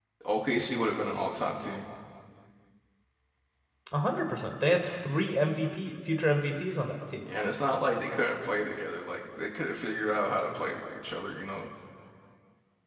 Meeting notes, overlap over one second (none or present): none